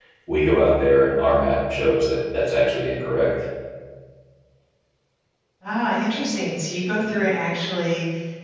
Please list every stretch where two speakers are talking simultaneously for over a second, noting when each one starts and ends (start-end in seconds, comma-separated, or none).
none